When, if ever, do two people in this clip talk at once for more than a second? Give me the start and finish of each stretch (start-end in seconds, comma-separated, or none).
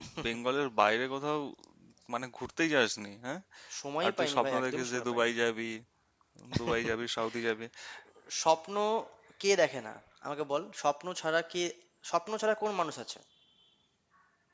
4.0-5.3